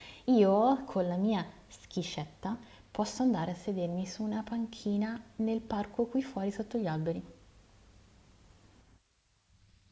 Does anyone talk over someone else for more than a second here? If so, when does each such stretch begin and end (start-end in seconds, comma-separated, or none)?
none